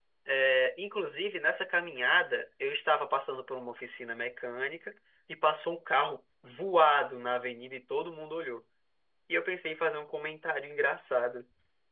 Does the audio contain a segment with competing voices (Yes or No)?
No